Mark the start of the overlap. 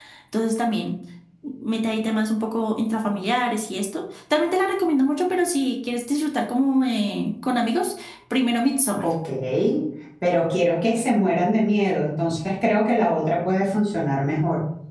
none

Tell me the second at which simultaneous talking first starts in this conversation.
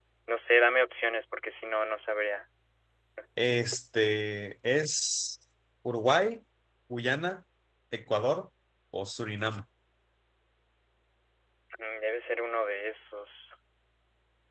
none

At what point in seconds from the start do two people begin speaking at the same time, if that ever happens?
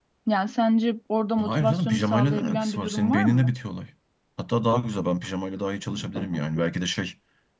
1.4 s

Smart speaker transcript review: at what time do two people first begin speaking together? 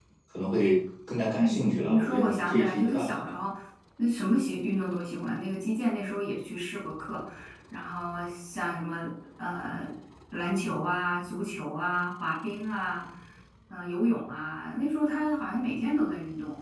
1.4 s

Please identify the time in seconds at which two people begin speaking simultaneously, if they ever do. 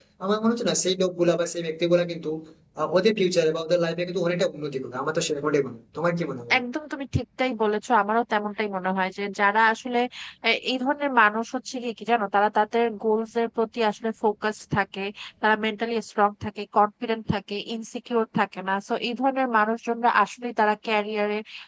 none

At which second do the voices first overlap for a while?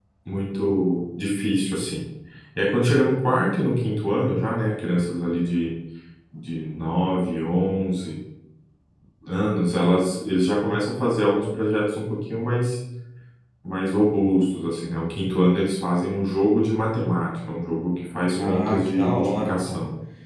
18.4 s

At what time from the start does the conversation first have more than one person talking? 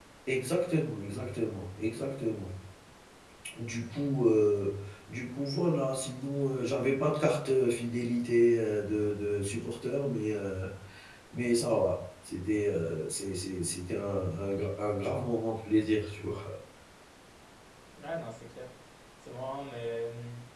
none

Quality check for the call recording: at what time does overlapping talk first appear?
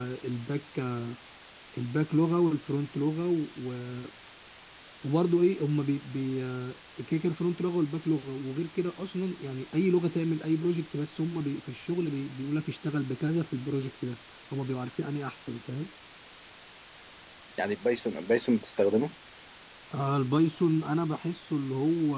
none

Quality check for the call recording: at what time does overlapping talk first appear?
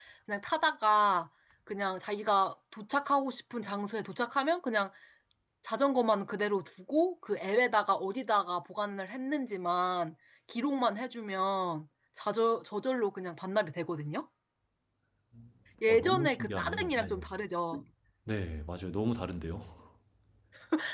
15.9 s

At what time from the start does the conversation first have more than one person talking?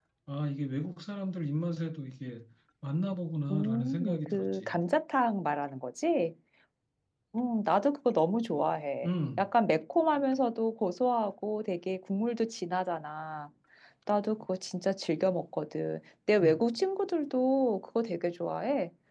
3.5 s

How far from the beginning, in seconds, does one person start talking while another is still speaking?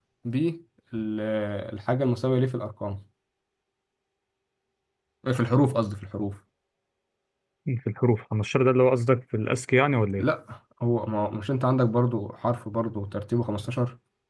none

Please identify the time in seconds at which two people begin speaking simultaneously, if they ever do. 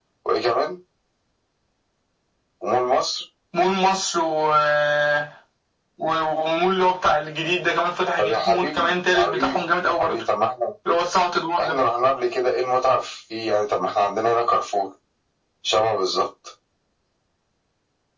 8.2 s

